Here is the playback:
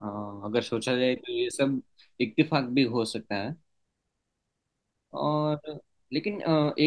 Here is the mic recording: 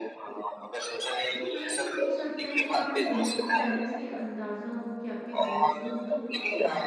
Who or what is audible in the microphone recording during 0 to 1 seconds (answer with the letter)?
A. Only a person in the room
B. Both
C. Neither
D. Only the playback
D